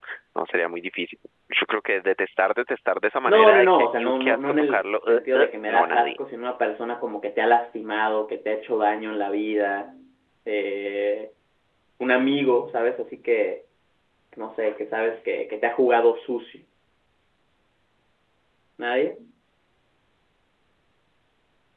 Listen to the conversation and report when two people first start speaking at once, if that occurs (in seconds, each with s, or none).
3.3 s